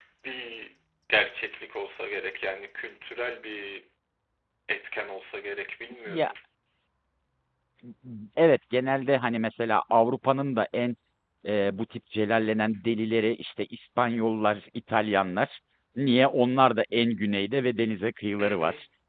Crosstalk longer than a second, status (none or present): none